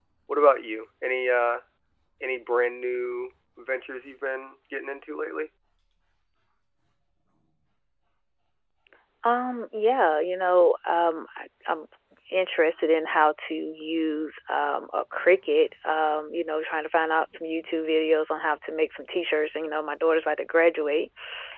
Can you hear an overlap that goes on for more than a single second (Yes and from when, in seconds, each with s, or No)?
No